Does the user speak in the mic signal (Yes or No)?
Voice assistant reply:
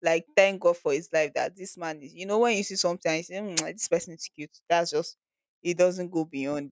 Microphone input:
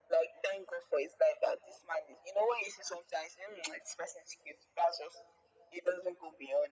No